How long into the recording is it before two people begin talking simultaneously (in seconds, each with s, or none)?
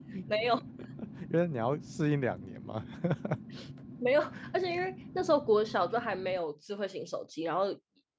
none